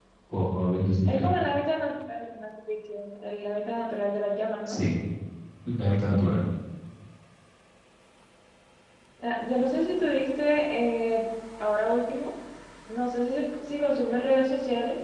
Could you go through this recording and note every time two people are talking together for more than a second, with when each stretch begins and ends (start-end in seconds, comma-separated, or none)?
none